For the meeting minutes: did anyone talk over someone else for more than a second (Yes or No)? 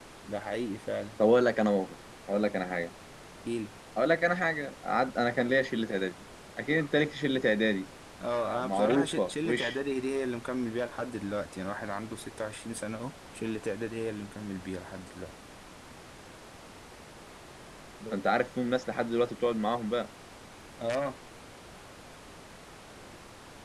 Yes